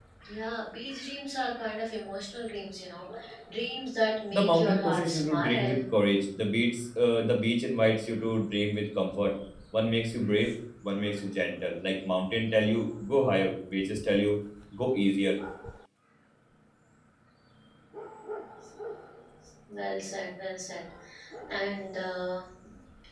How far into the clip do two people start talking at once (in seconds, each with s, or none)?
4.3 s